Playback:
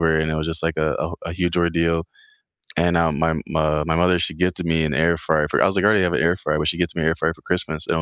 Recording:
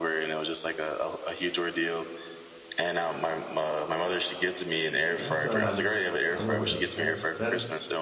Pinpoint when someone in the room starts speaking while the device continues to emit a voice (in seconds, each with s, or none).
5.1 s